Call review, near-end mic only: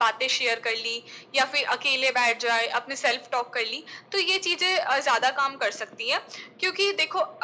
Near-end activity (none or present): none